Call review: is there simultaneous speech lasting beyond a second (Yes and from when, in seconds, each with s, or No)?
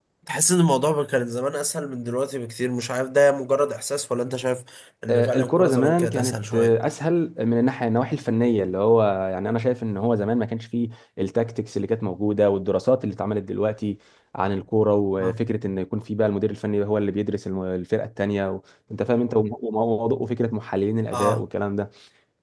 Yes, from 5.1 s